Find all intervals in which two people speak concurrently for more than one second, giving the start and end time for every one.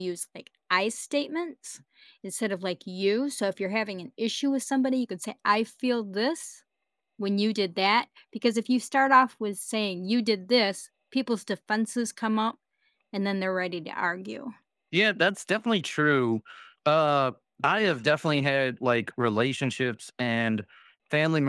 none

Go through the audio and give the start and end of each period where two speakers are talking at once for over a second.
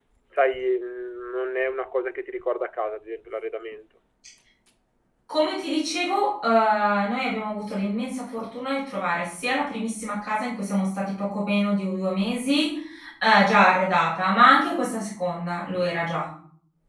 none

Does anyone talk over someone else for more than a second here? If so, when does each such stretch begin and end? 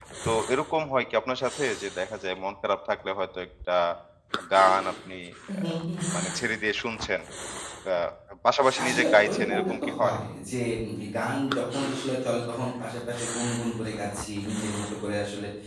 8.8-10.2

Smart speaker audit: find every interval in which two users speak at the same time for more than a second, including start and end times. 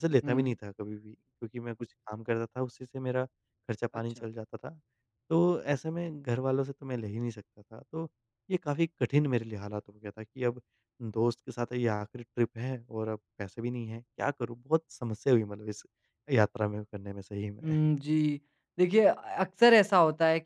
none

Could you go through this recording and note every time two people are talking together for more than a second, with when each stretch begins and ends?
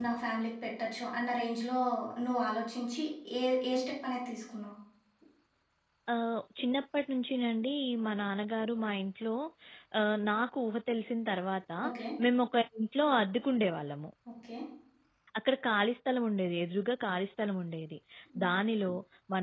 none

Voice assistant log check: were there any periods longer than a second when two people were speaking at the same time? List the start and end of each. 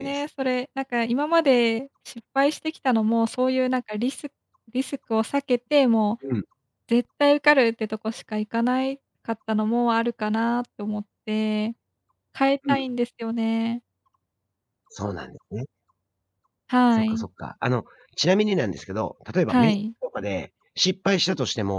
none

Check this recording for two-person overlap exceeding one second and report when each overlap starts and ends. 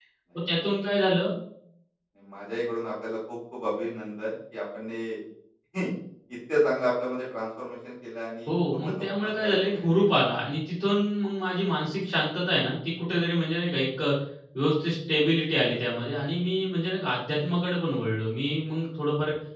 8.5-10.1

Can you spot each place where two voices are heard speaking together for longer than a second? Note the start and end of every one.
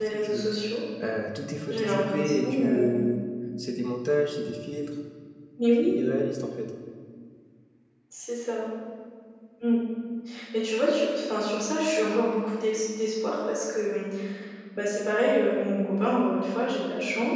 1.7-3.0

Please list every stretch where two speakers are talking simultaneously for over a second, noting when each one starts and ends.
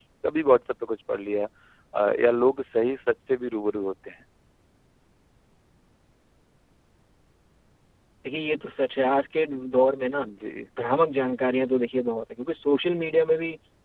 none

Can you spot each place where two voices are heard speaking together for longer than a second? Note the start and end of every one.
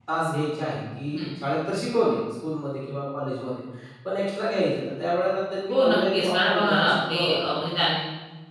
5.7-7.9

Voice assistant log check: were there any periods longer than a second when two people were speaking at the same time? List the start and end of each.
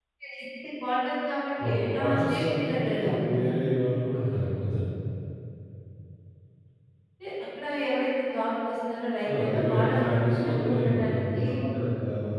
1.6-3.7, 9.3-11.4

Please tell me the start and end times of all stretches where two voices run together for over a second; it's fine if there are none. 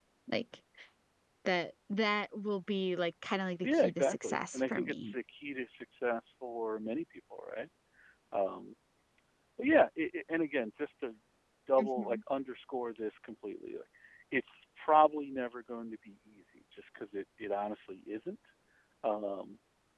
3.6-5.1

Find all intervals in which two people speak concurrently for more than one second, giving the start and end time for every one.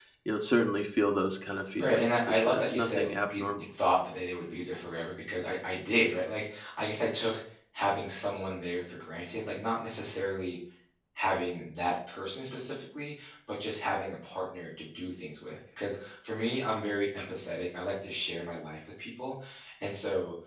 1.8-3.4

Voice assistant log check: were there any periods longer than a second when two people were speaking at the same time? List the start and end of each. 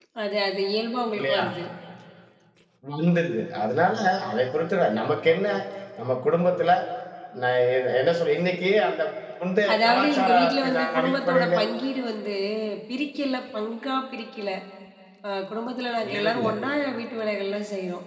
9.7-11.6

